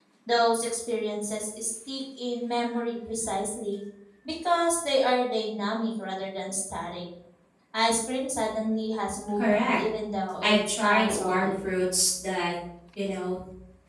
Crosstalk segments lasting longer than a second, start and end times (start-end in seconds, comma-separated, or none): 10.4-11.7